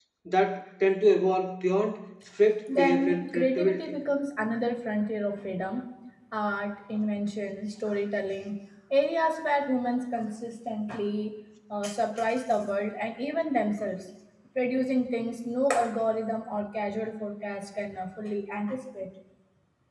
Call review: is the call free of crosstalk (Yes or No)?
No